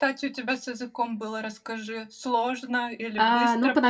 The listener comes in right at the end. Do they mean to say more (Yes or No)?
Yes